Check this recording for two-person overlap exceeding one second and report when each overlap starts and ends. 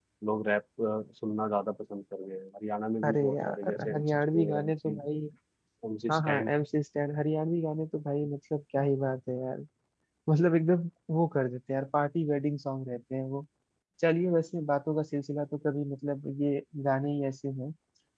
3.0-5.0

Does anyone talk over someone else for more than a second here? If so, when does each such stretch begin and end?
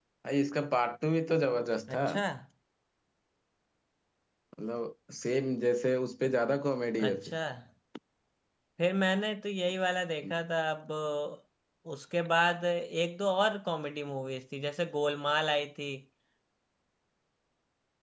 none

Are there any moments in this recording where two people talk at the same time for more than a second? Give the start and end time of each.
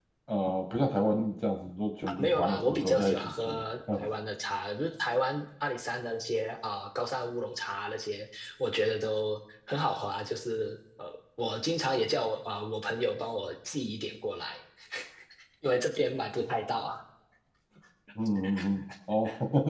2.2-3.6

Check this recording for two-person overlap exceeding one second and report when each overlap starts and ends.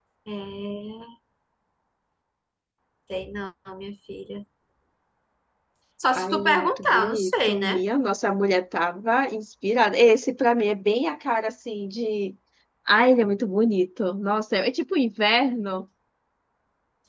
6.1-7.8

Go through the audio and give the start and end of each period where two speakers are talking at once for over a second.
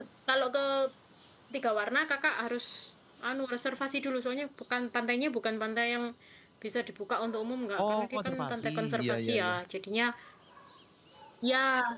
7.8-9.6

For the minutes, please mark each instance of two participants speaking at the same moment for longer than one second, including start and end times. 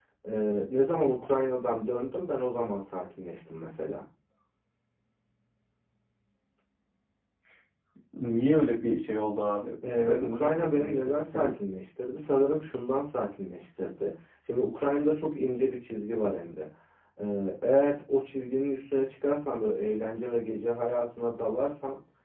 10.0-11.5

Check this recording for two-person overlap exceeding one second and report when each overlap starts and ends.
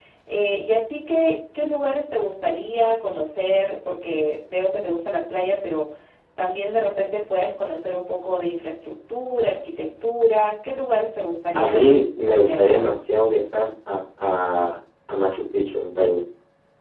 11.5-12.9

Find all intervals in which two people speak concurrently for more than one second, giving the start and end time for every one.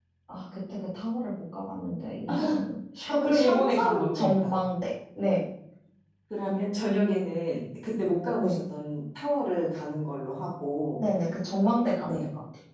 3.1-4.5

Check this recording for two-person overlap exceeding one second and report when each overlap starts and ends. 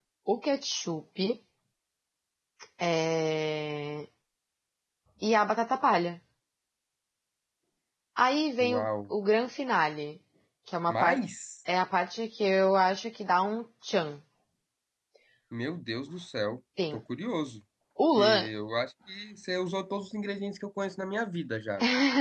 none

